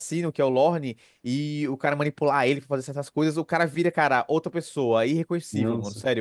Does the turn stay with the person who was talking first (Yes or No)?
Yes